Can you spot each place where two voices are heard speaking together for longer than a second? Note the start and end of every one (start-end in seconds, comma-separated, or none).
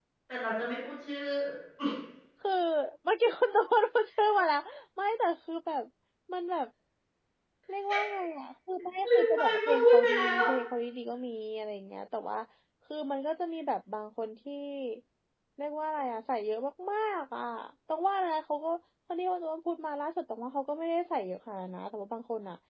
9.2-10.4